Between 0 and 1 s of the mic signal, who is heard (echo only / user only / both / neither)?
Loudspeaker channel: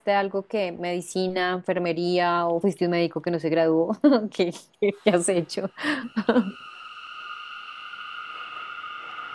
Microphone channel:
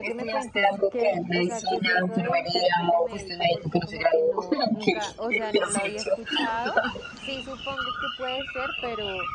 both